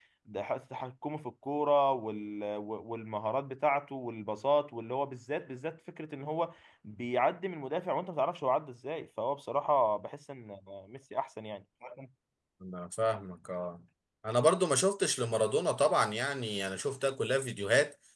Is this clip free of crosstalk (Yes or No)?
Yes